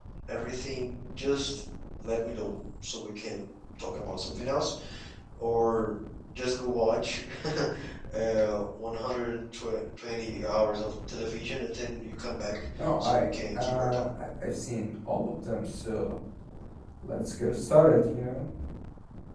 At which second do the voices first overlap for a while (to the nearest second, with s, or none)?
13 s